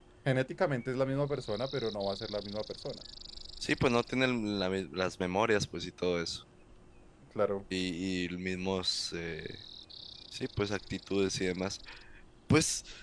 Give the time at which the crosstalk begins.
none

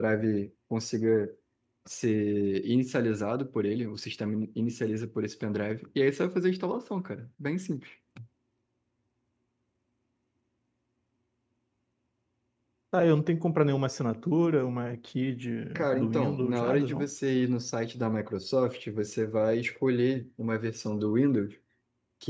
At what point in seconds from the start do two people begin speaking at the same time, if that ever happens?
15.8 s

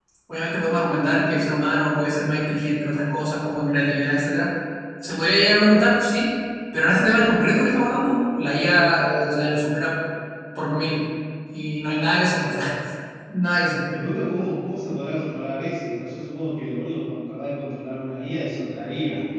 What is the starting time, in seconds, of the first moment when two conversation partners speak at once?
none

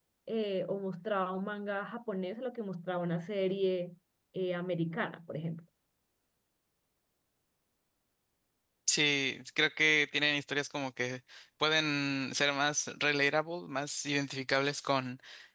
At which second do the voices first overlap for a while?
none

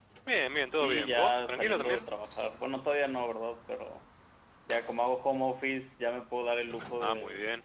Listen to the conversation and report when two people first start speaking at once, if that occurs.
0.7 s

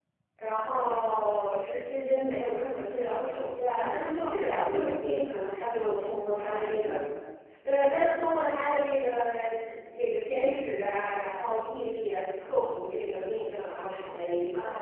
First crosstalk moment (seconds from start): 3.7 s

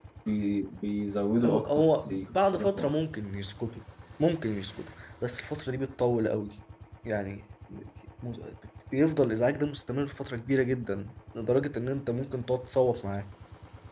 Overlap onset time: 1.4 s

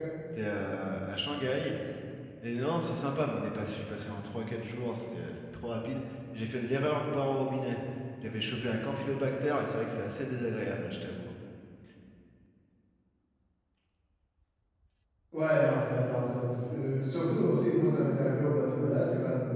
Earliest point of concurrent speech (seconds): none

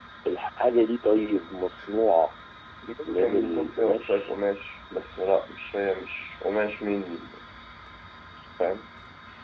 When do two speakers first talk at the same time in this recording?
3.0 s

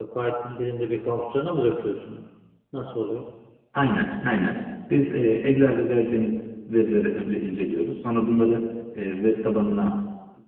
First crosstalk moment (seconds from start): none

